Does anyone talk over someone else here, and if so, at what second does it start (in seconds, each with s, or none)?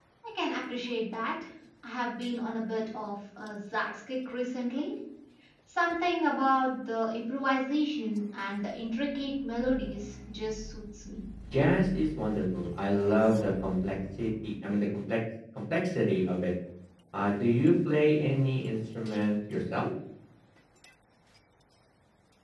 none